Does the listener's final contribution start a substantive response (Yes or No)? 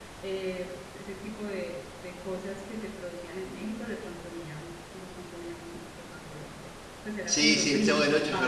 Yes